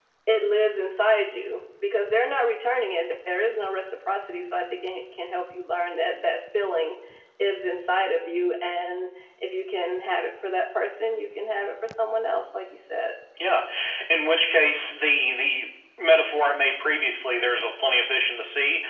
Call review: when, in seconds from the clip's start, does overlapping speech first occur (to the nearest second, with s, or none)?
none